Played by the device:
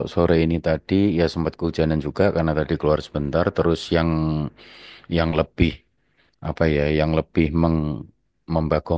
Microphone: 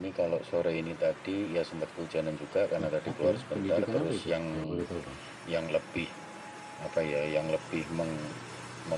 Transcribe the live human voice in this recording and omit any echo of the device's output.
Eh, oke, pendidikan apa itu kalau boleh tahu Bang?

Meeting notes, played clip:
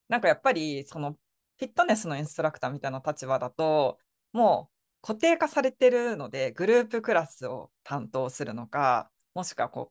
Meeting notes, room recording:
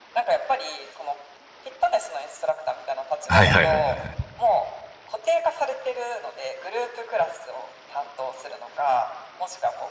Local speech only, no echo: はいはいはいは

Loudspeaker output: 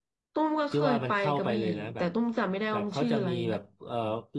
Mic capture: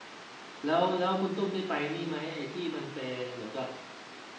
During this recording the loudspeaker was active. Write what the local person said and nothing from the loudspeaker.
แล้วแล้วคุณตุ้มได้ไปนี่ไหมไอ้ที่มันเป็นเหมือนกับ

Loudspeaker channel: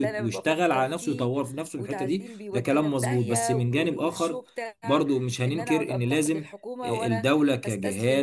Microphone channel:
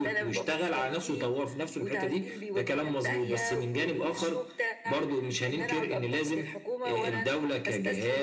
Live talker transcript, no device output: none

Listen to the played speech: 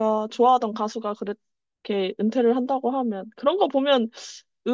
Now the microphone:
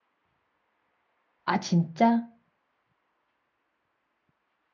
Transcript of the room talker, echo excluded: 아, 진짜?

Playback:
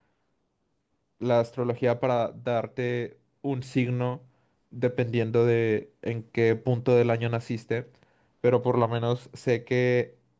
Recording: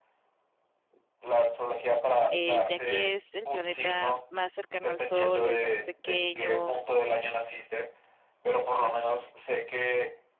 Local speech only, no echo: eh, ya que es el planeta más cercano al Sol y el más pequeño,

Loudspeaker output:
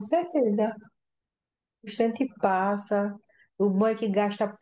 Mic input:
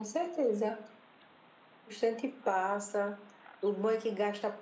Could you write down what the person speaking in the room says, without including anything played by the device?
none

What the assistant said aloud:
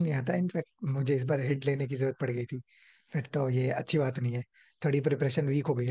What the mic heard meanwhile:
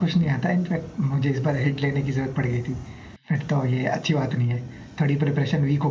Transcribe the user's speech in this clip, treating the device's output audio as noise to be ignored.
none

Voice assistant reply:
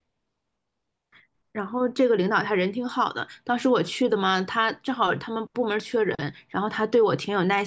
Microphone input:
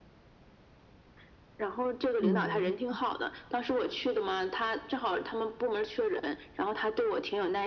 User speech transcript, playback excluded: 嗯，

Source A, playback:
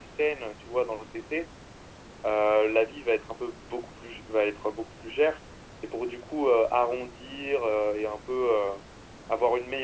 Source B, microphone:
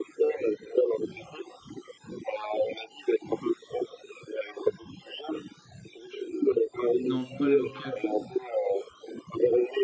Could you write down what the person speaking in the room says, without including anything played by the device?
Non, pas le 4.

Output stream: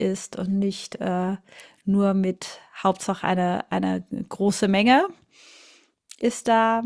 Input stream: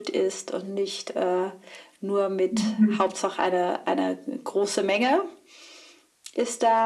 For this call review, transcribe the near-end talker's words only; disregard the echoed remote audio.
Mhm.

